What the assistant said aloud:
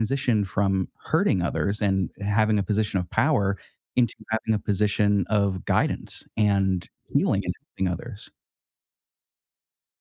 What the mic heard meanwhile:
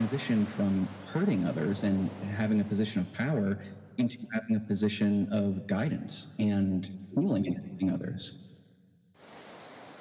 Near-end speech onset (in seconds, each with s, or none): none